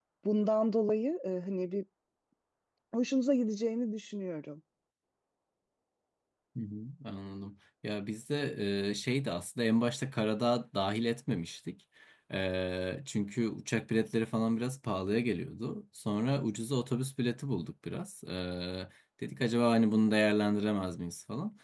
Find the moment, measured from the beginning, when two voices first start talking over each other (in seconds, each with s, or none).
none